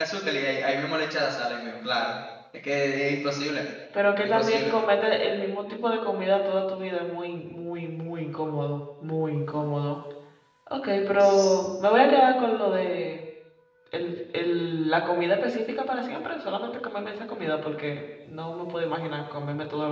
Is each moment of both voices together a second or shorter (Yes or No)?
Yes